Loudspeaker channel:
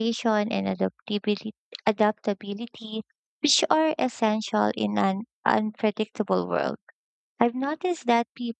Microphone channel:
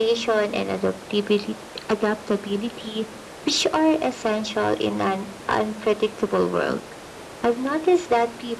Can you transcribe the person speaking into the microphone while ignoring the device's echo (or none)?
none